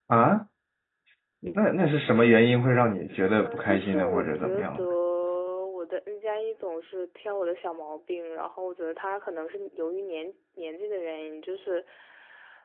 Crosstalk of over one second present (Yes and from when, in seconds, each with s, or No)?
Yes, from 3.4 s